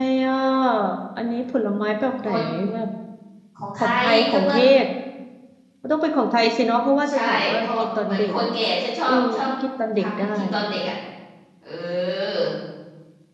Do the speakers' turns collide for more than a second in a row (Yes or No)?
Yes